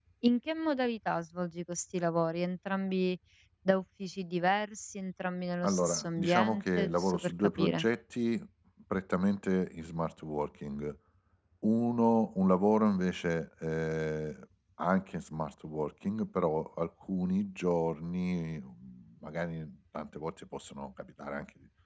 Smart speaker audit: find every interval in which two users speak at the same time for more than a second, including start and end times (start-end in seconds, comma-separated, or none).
5.6-7.9